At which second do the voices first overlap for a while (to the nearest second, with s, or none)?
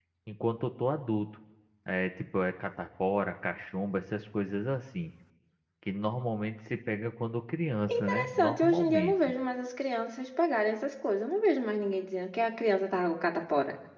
8 s